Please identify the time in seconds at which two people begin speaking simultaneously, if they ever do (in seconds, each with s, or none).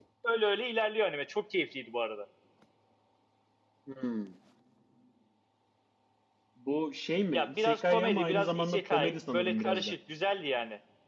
7.3 s